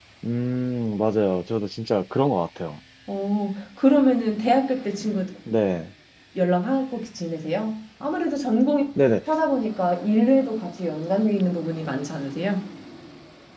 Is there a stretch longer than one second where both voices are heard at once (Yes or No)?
No